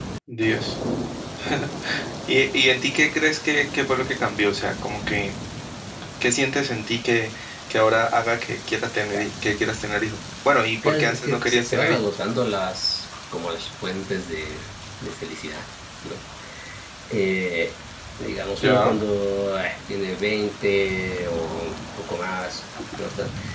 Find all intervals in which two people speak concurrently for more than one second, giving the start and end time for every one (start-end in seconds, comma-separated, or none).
10.8-12.1